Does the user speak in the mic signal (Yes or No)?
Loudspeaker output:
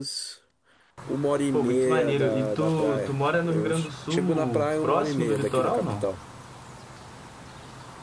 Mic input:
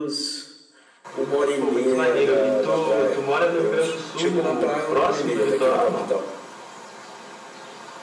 No